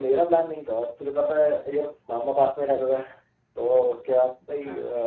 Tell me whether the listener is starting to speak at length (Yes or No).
No